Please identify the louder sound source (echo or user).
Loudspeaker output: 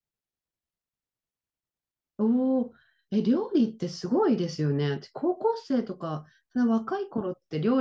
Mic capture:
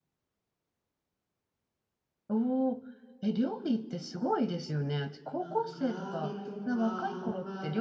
echo